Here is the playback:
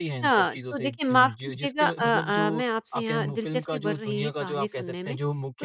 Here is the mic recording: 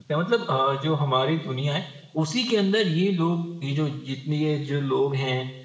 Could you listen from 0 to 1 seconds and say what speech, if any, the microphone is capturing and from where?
user only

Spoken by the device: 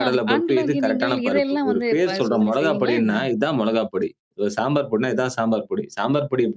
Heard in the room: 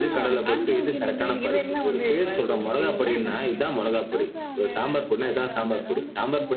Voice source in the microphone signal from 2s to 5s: both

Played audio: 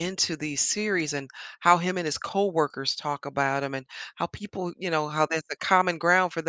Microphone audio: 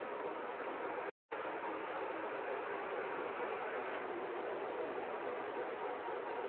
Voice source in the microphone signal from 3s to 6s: neither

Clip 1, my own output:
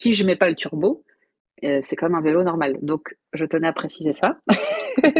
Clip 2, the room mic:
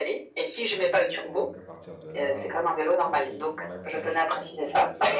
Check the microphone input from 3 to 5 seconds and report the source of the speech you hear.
both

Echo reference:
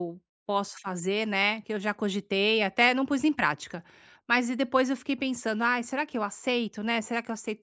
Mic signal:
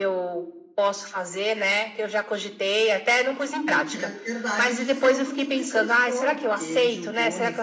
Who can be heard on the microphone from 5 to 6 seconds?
both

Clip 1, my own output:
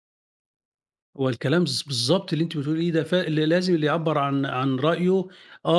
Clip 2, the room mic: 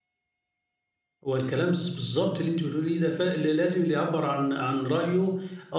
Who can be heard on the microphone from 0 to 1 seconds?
neither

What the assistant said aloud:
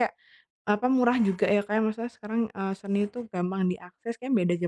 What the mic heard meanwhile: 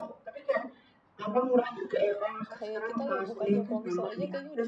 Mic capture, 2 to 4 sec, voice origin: both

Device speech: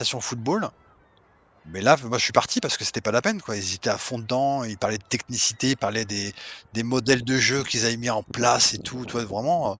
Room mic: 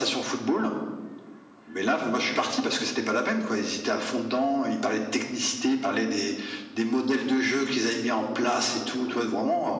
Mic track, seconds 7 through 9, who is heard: echo only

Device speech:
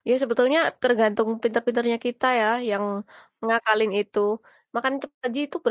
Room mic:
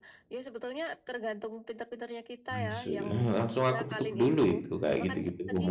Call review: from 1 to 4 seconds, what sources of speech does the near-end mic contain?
both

